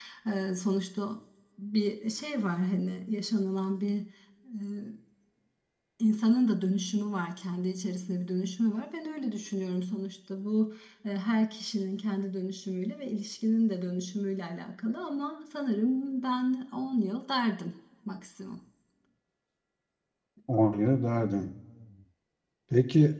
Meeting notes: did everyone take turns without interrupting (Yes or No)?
Yes